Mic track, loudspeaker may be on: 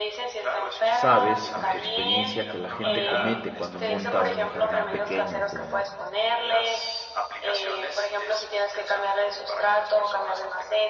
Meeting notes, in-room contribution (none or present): present